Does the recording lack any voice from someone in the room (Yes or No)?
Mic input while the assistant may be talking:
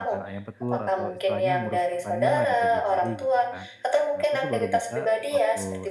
No